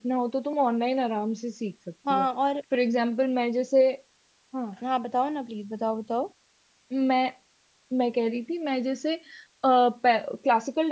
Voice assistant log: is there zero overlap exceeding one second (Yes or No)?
Yes